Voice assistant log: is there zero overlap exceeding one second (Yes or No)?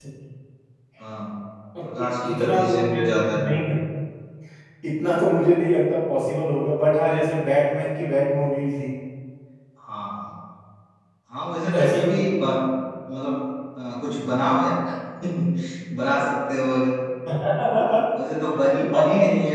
No